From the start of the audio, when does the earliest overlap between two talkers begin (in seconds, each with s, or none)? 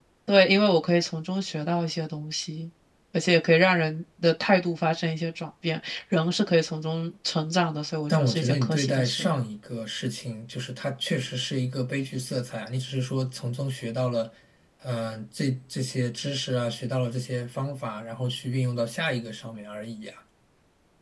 8.1 s